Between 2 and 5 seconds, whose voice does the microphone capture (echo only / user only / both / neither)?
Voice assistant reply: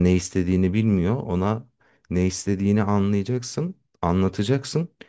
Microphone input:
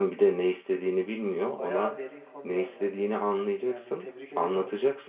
both